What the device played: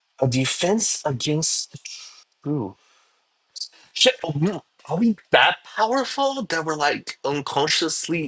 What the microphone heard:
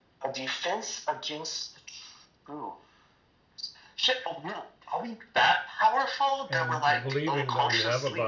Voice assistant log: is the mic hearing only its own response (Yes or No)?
No